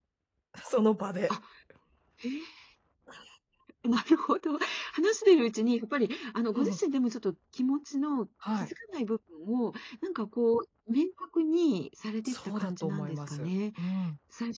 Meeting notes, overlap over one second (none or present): present